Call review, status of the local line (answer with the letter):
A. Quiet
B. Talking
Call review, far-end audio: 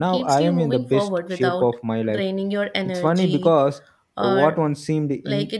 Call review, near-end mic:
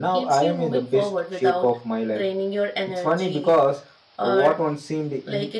A